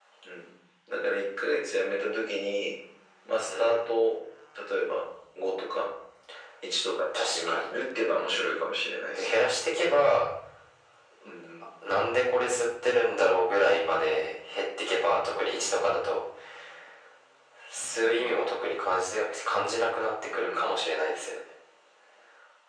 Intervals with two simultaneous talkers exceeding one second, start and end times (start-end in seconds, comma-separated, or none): none